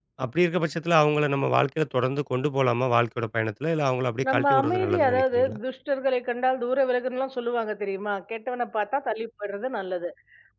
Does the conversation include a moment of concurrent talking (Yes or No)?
Yes